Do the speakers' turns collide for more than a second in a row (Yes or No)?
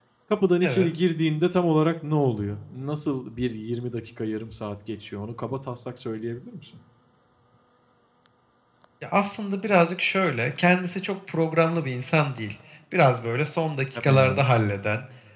No